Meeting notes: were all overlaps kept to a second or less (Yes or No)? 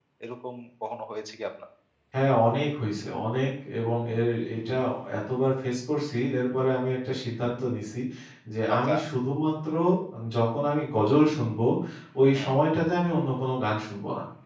Yes